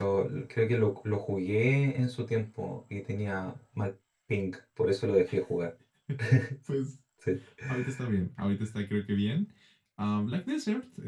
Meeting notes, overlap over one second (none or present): none